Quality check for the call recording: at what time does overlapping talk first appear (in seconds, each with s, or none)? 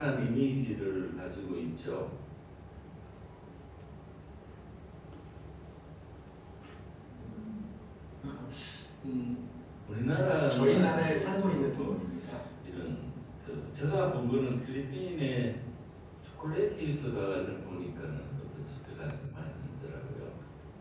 10.5 s